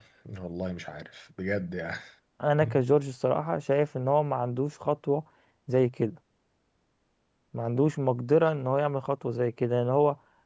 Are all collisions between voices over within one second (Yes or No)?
Yes